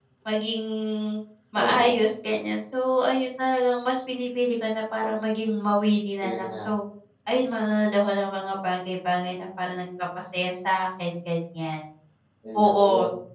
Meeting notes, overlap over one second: none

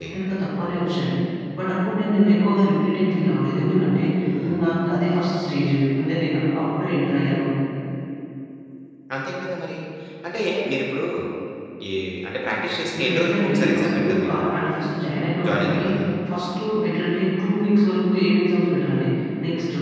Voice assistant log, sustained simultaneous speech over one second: present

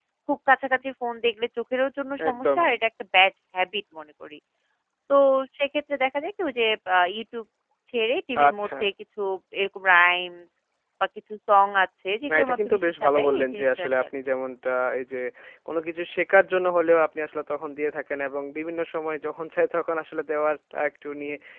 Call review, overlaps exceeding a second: present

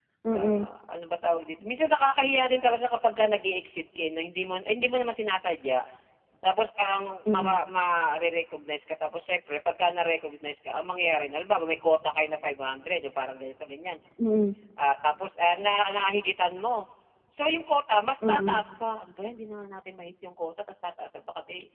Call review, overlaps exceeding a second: none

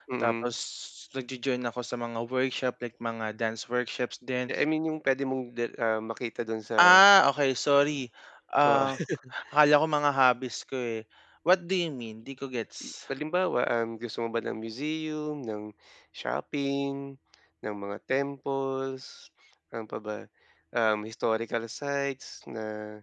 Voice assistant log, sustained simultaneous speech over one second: none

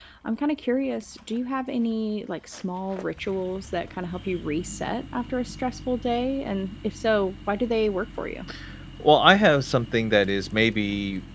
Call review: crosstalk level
none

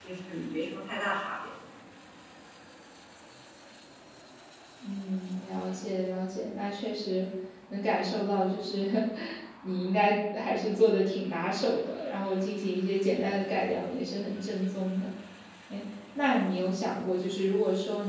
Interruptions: none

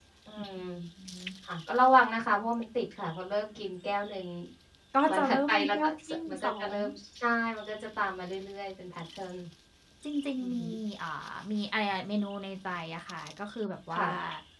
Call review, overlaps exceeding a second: present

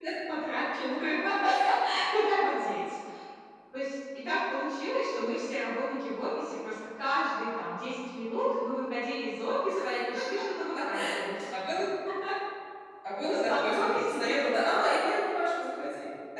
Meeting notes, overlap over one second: present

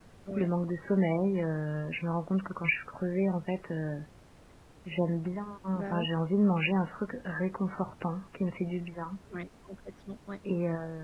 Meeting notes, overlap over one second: none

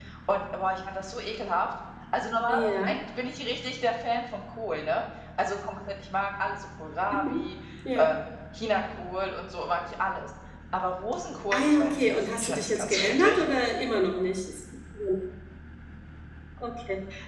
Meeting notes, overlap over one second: present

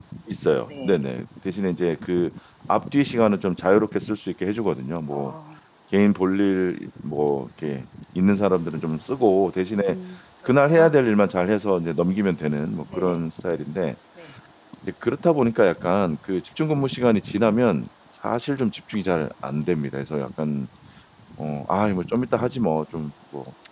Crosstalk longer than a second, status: none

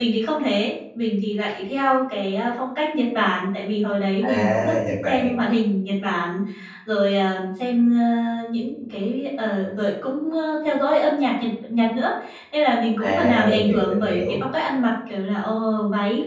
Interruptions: present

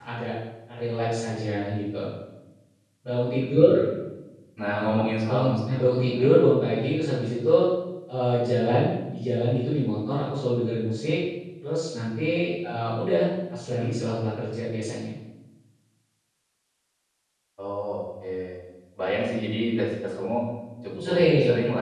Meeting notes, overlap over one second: present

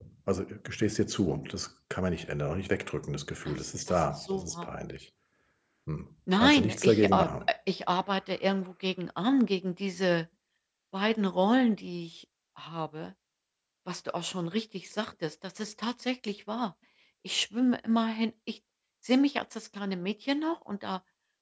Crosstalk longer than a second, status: present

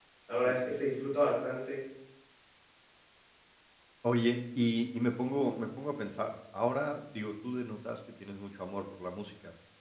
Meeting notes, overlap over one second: none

